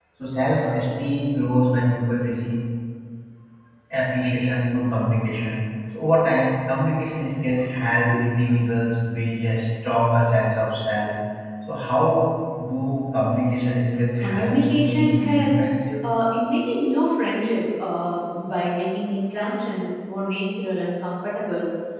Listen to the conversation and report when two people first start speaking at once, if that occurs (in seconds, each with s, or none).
14.2 s